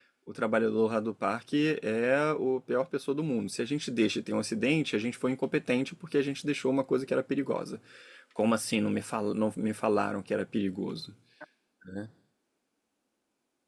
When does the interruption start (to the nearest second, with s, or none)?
none